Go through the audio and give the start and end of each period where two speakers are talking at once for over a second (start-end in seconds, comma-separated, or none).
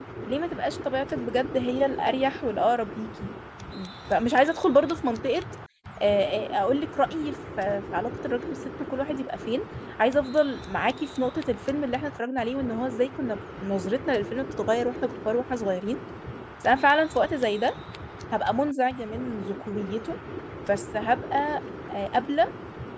none